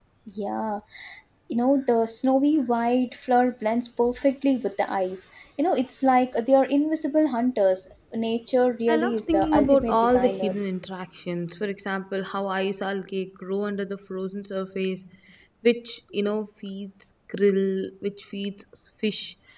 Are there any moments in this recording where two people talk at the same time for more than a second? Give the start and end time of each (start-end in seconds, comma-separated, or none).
8.9-10.6